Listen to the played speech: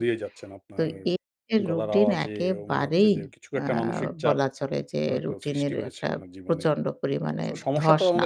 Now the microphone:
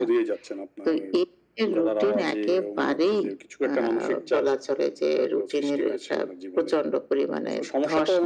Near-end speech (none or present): none